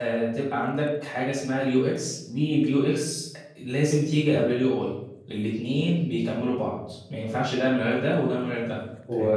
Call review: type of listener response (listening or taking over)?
taking over